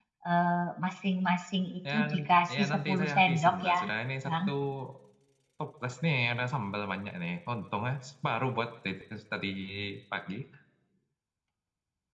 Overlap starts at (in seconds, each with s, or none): 1.9 s